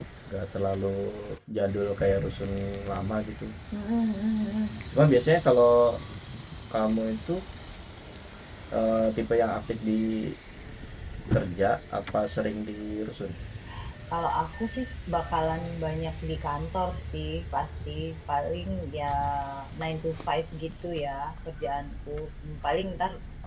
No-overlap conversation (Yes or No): Yes